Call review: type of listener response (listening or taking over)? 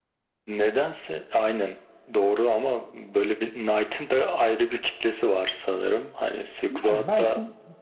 taking over